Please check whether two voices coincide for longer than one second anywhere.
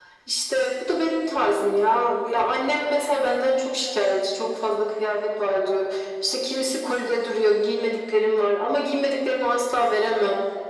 No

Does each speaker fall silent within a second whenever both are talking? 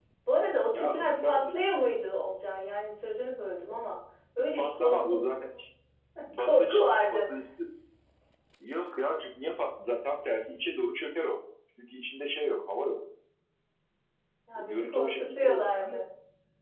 No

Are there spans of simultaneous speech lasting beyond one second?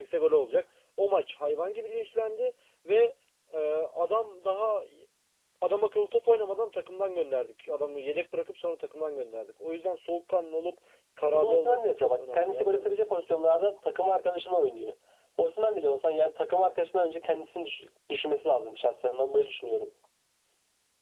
Yes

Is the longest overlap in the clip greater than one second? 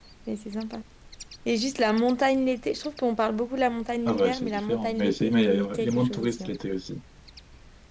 Yes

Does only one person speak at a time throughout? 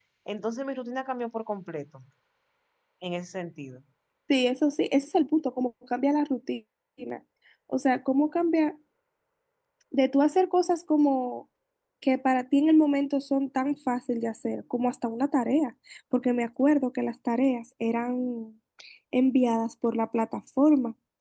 Yes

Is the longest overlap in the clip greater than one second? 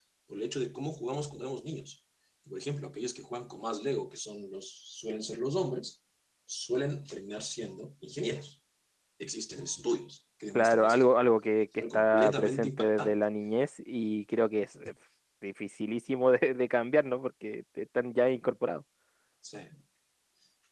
Yes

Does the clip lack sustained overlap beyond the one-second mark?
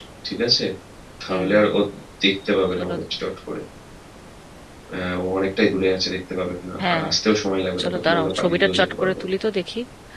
No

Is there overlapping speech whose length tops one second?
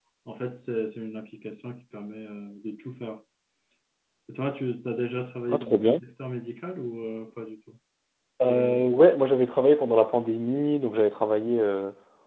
No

